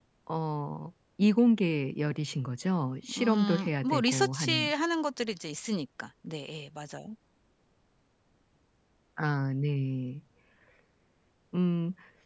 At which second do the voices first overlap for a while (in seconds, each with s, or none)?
3.0 s